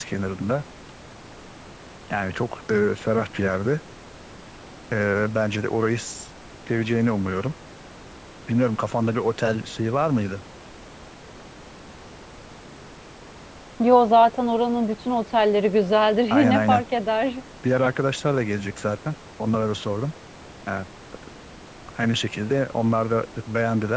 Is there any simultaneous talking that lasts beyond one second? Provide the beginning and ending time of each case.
none

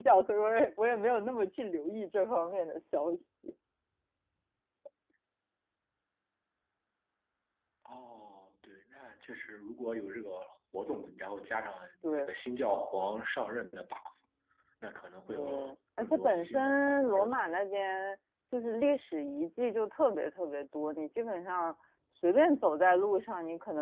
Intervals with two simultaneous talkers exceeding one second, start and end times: 16.0-17.5

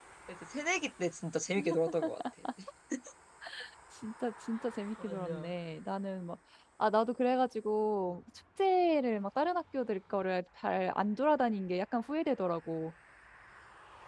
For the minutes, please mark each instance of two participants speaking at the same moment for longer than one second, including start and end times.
none

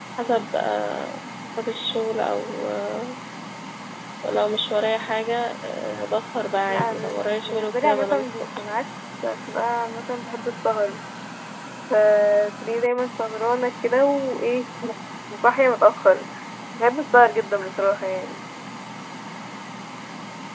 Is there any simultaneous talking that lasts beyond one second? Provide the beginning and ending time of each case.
6.7-8.4

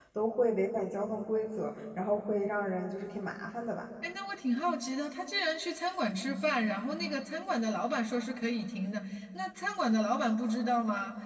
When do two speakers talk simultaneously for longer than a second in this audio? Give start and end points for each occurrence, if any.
none

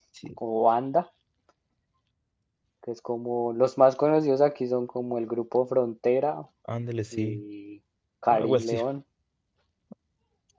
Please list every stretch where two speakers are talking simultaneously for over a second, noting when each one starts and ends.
none

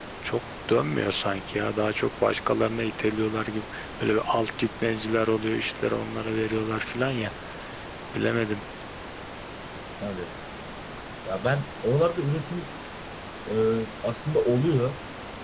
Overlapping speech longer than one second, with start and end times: none

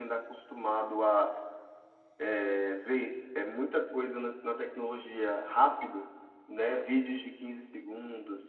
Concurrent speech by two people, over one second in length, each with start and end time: none

